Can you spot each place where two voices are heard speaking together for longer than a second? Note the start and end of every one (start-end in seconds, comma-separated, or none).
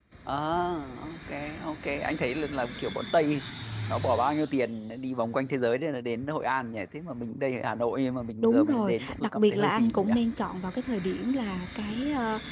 8.4-10.1